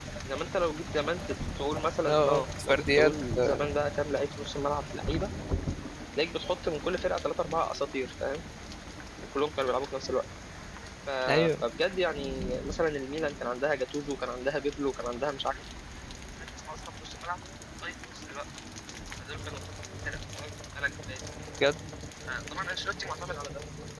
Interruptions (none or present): present